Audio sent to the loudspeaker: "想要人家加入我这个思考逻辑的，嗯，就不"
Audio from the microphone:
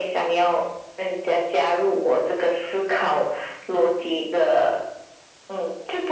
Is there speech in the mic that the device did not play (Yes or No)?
No